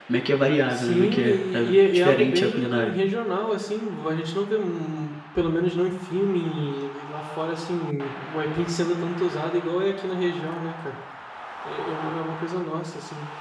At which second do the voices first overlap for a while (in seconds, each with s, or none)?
0.7 s